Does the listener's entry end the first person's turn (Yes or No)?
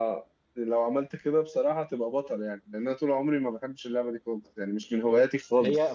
Yes